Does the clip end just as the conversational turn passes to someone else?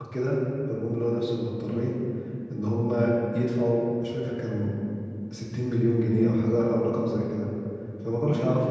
No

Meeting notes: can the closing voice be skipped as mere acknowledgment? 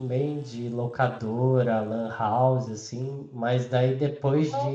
Yes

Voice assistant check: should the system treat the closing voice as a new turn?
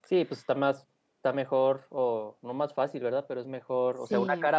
No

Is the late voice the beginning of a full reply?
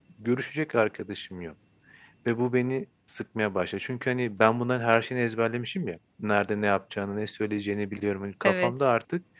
No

